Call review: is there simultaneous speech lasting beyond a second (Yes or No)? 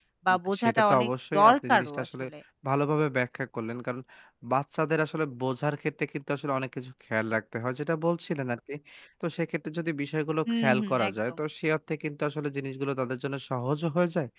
Yes